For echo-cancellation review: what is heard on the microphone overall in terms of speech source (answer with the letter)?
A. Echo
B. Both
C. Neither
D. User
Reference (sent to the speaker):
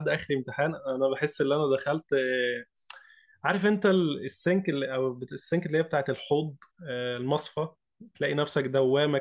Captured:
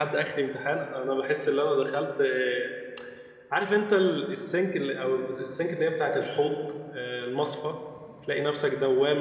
A